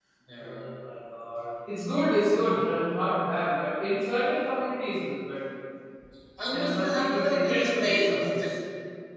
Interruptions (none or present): present